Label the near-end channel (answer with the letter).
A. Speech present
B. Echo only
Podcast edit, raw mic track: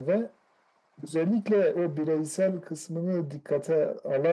B